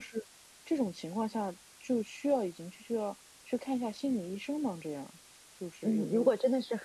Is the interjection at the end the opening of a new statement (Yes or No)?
Yes